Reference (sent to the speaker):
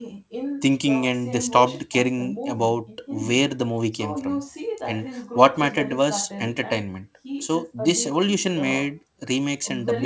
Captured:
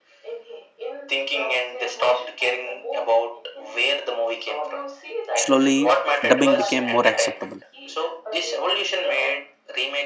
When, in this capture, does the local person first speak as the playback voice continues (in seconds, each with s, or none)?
5.3 s